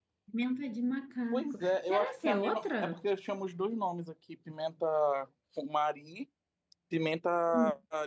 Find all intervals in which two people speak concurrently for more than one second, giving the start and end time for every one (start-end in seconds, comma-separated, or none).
1.3-2.8